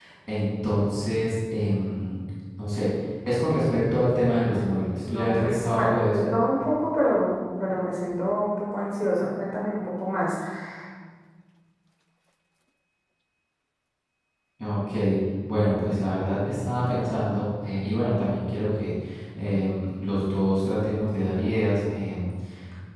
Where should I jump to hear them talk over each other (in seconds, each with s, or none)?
5.0 s